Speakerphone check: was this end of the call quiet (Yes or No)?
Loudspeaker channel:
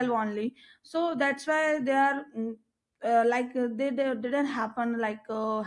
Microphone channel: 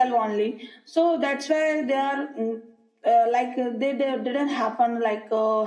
Yes